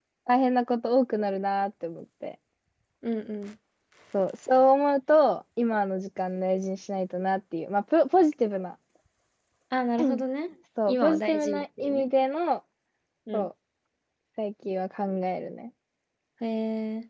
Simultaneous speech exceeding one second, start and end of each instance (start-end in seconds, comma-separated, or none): 10.9-12.1